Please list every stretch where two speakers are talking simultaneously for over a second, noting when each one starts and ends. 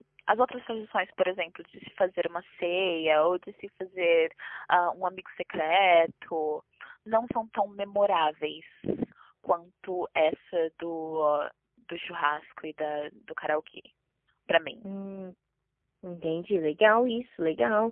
none

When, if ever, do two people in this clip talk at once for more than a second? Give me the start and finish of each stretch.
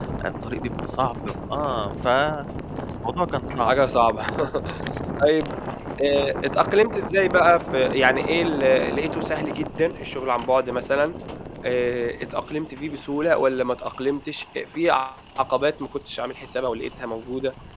none

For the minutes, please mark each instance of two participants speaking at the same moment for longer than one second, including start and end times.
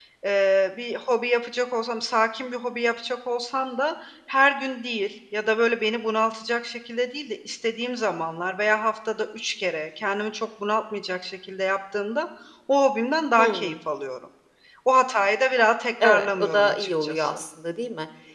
16.0-17.4

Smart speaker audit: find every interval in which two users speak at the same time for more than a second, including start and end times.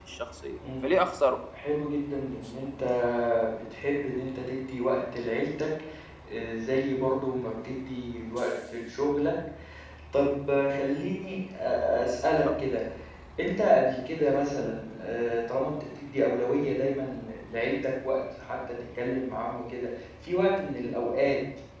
none

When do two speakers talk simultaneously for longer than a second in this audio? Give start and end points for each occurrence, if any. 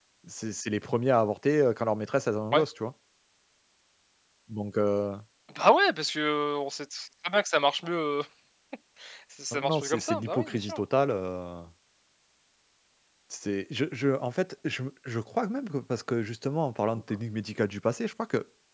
9.5-10.8

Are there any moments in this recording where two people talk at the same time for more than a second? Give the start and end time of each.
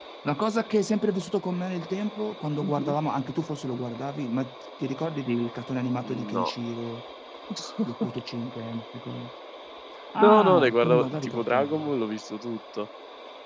10.2-11.9

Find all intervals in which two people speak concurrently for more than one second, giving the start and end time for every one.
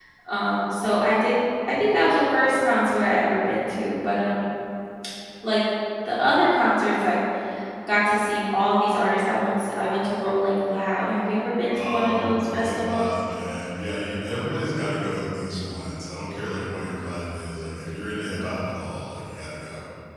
11.7-13.1

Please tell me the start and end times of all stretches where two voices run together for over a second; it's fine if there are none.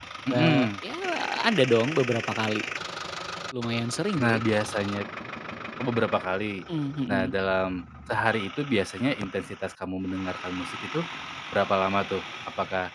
none

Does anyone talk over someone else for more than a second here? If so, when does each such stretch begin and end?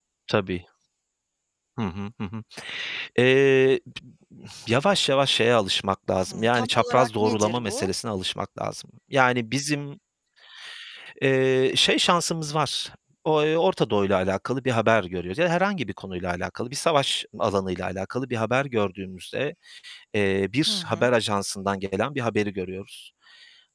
6.3-7.9

